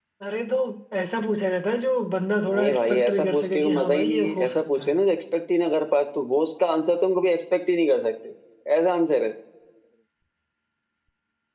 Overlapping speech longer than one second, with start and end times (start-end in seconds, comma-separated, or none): 2.5-5.0